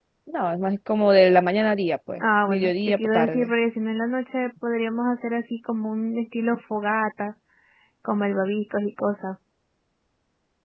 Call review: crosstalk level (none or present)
present